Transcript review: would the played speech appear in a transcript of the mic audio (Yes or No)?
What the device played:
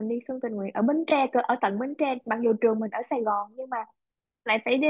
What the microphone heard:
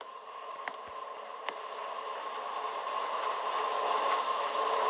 No